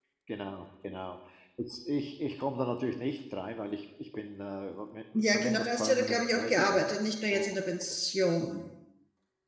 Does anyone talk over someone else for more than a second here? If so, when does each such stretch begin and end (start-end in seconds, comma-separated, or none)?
5.2-6.9